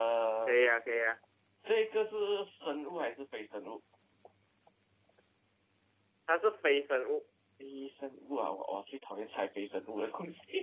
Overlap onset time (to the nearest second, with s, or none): none